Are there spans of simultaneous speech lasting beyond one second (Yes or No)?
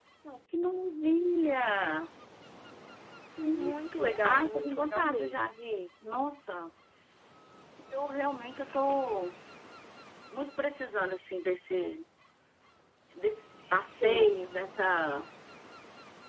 Yes